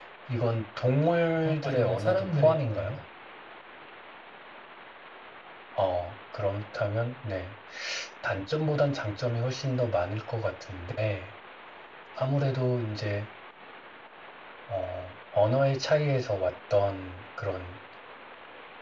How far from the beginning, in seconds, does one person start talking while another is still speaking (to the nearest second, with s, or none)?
1 s